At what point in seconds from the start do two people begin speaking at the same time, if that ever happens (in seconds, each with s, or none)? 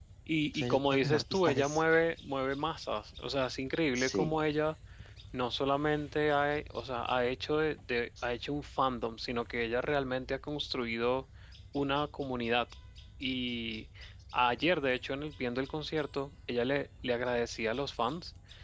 0.5 s